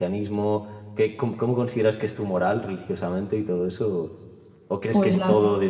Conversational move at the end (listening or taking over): listening